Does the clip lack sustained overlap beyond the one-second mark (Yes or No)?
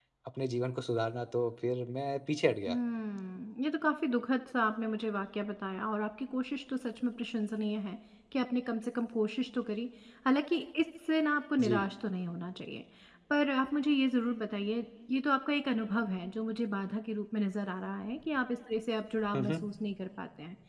Yes